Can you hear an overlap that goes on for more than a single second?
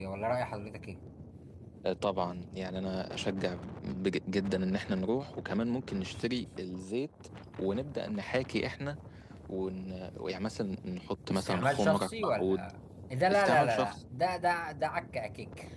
Yes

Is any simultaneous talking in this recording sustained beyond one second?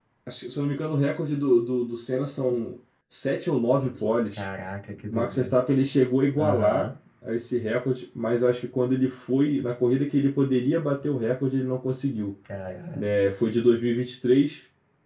No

